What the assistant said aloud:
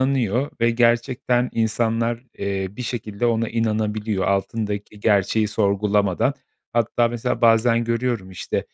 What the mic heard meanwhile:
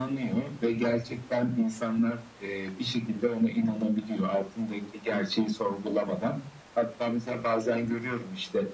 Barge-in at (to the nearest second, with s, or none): none